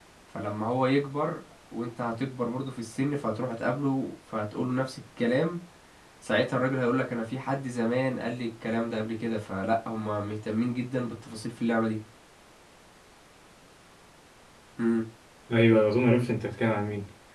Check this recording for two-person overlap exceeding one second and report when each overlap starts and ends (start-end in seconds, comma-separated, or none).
none